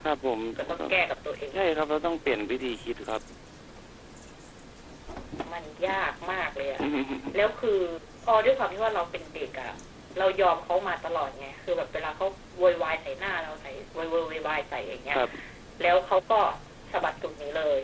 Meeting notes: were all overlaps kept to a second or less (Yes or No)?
Yes